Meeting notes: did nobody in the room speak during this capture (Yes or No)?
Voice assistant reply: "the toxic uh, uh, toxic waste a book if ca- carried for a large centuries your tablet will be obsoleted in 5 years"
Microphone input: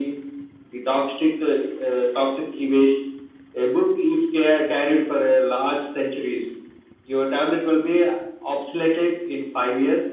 Yes